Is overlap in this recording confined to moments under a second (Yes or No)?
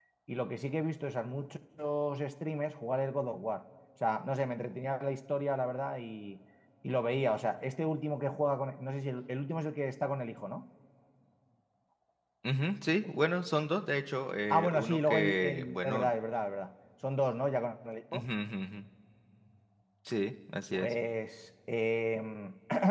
No